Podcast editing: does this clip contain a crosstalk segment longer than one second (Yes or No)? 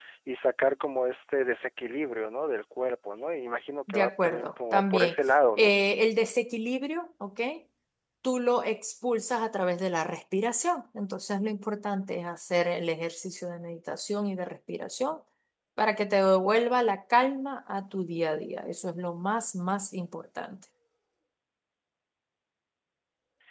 Yes